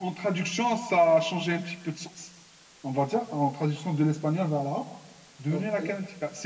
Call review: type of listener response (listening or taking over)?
listening